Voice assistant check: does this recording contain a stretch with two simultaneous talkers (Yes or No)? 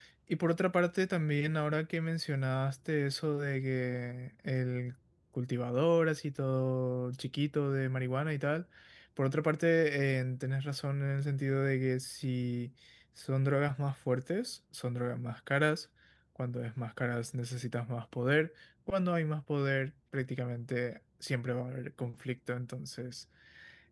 No